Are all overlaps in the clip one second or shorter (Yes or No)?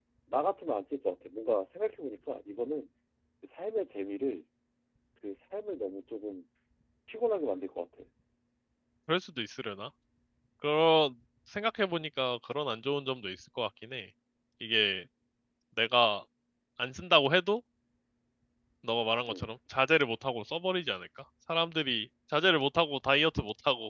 Yes